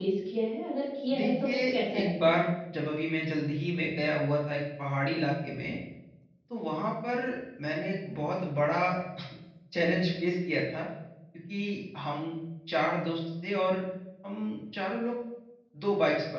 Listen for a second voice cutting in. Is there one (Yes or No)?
Yes